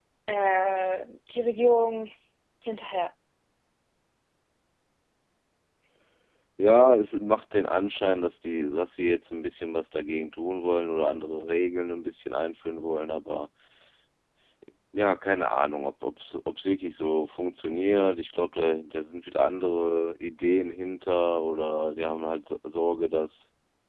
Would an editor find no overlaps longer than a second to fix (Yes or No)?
Yes